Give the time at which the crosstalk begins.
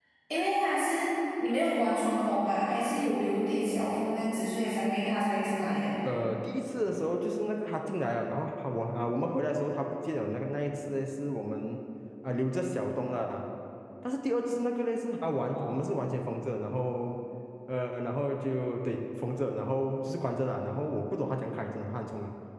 none

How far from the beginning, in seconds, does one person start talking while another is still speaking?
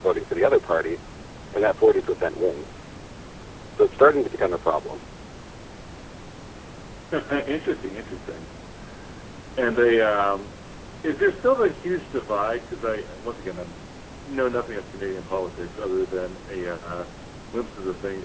none

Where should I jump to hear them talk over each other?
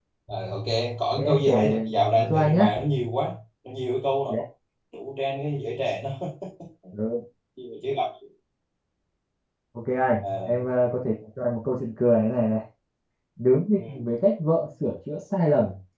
1 s

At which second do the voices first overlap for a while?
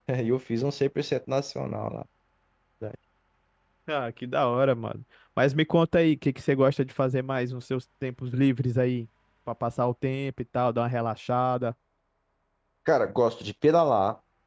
none

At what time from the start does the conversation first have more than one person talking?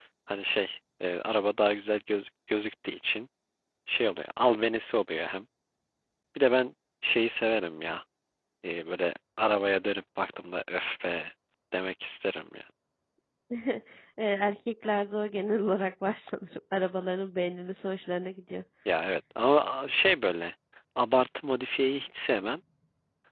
none

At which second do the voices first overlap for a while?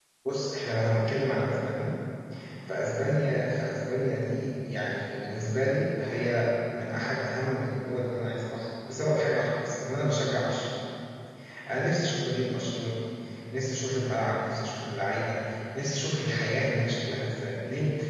none

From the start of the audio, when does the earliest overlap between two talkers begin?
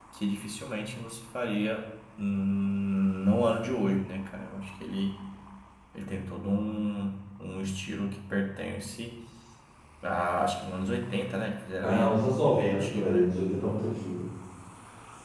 12 s

